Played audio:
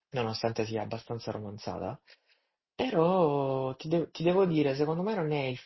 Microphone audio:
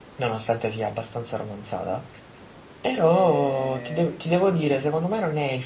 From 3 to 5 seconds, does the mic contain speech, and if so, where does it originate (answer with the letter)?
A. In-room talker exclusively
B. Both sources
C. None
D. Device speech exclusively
B